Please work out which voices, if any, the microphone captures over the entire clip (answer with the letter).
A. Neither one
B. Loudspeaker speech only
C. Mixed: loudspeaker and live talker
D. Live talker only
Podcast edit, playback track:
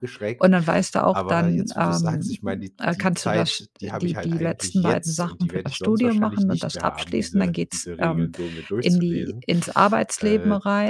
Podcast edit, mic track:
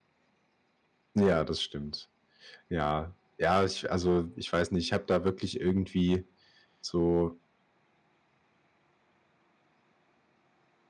D